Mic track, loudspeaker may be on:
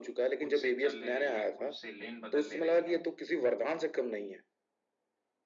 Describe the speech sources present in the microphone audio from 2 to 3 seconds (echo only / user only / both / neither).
both